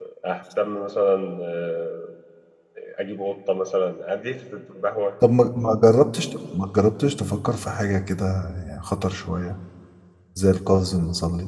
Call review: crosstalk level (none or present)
none